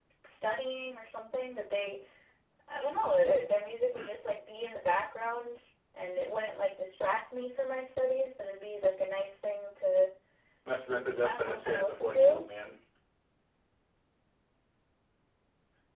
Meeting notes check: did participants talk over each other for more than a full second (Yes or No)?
Yes